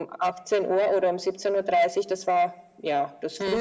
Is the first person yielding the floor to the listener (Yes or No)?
Yes